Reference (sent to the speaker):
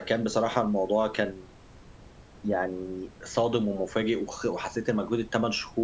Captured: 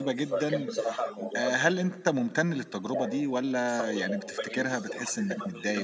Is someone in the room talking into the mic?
Yes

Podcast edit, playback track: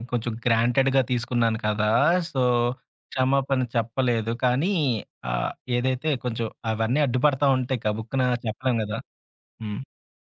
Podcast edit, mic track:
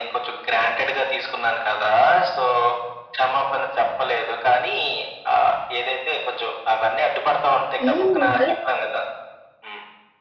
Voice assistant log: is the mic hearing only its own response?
No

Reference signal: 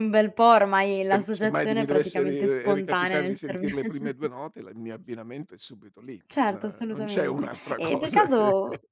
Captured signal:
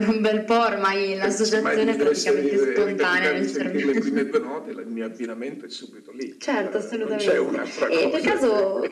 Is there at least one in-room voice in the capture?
No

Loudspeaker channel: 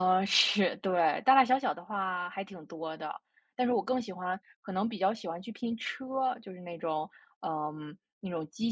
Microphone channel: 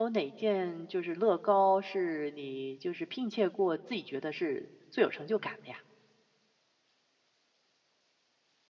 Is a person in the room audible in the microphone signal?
Yes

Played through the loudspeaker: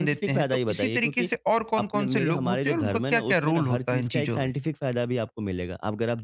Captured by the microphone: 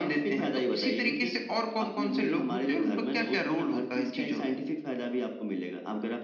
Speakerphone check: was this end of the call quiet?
Yes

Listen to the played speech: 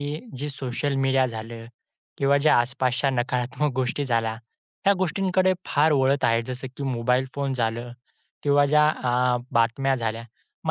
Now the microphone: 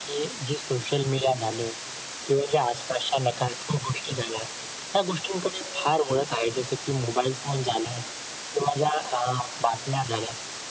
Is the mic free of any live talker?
Yes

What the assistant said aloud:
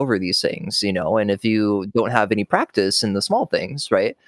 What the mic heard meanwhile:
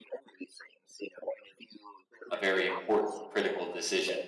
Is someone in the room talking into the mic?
Yes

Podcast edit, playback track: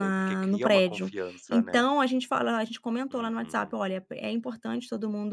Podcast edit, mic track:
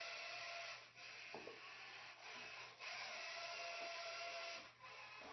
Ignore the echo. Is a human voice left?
No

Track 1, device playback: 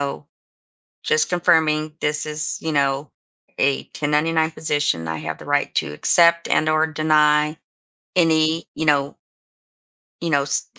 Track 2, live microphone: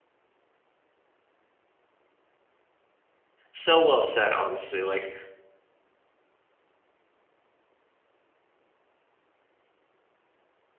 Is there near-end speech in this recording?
Yes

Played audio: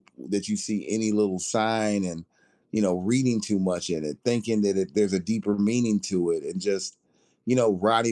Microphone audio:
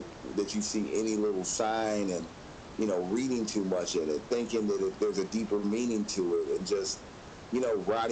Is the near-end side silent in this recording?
Yes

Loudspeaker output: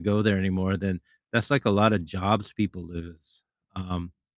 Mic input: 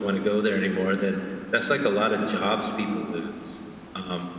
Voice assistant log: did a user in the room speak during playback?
No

